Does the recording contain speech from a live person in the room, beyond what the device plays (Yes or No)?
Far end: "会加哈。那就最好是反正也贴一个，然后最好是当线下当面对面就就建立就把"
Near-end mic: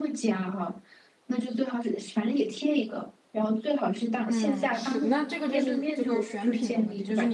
Yes